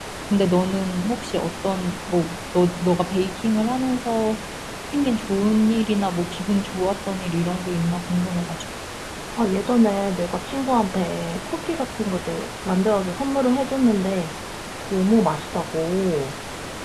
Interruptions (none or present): none